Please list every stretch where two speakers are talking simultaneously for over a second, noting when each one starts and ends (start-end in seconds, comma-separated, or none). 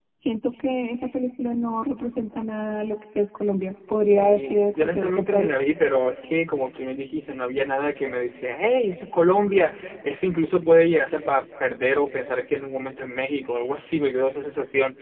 4.2-5.5